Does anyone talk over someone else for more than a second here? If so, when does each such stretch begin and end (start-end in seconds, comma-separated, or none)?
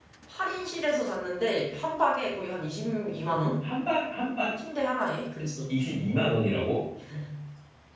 none